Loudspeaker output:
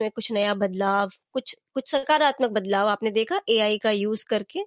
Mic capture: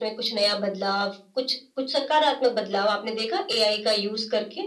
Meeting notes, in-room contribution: none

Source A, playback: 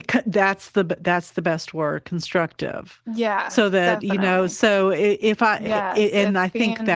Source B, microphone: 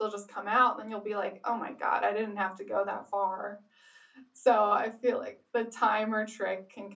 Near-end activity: present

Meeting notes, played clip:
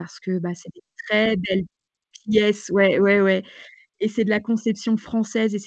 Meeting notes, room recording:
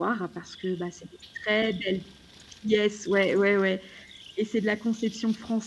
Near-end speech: none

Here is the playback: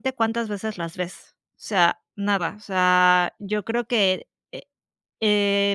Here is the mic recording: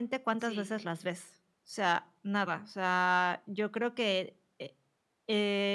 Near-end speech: present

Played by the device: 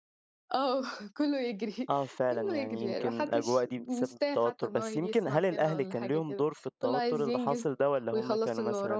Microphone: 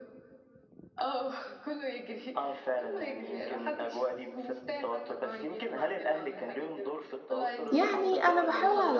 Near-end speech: present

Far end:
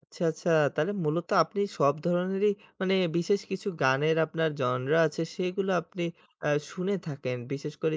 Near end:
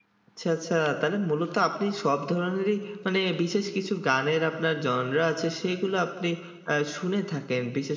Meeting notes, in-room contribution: none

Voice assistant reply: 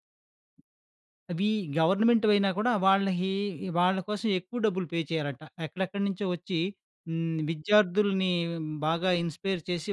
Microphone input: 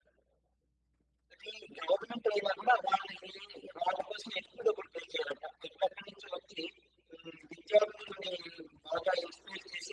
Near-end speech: none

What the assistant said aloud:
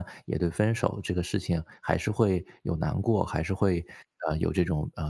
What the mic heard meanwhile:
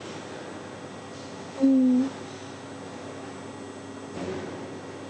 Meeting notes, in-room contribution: present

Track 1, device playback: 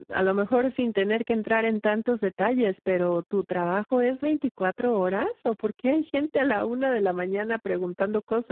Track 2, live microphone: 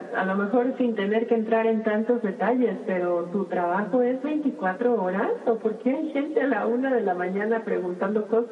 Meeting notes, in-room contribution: none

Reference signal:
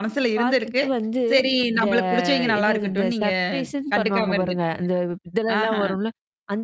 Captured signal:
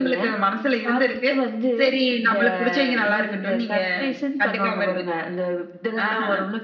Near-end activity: none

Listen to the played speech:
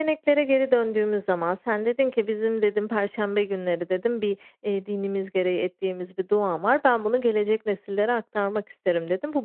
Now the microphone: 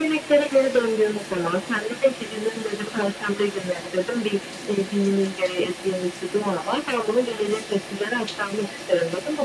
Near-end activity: none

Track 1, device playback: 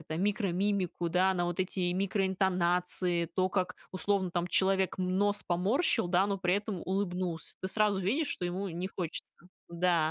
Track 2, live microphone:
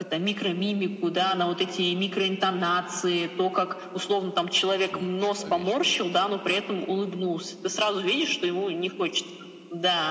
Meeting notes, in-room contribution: present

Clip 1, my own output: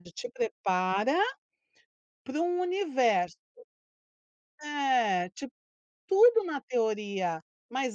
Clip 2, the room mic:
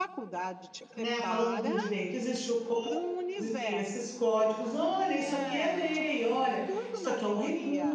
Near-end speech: present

